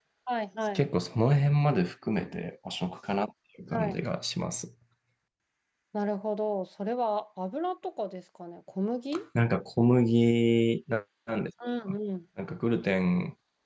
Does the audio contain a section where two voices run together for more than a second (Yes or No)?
No